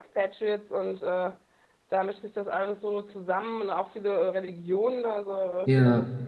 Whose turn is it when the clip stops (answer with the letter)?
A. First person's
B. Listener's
A